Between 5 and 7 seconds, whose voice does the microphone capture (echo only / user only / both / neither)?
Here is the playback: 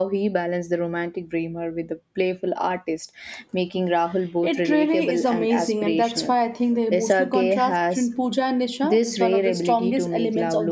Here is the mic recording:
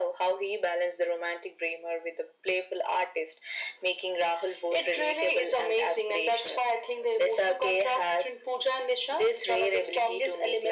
echo only